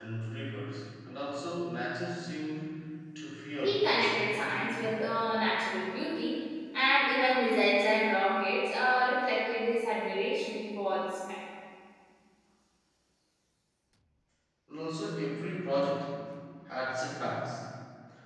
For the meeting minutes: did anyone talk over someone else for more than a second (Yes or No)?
Yes